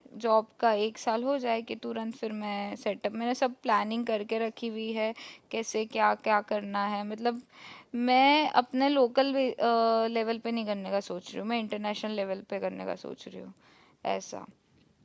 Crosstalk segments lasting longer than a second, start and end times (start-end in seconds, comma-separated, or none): none